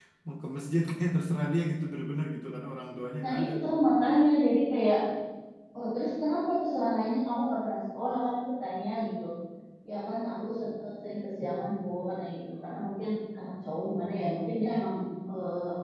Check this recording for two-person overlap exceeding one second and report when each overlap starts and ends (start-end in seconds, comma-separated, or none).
none